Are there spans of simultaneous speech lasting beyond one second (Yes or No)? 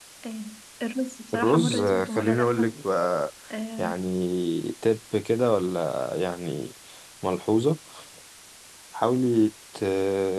Yes